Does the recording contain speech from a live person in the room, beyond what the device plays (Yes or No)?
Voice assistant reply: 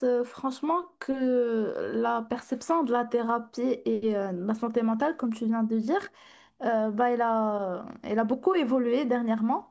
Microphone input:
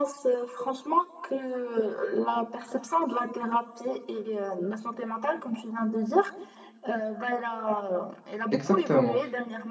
Yes